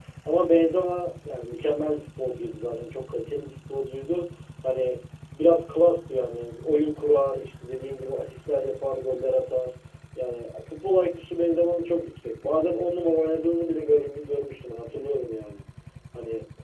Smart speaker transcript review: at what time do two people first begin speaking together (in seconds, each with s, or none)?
none